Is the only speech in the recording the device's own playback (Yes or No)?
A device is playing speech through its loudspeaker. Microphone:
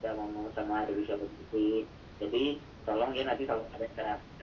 Yes